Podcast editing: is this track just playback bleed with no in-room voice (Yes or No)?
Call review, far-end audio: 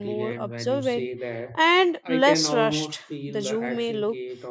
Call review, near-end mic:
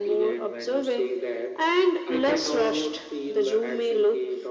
Yes